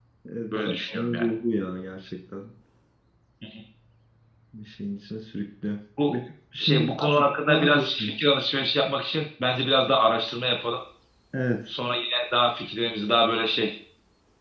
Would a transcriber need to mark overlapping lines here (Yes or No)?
Yes